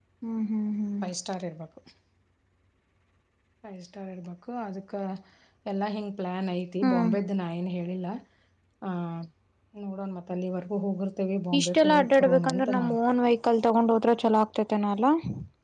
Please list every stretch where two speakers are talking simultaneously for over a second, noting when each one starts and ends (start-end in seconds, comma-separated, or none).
11.6-13.0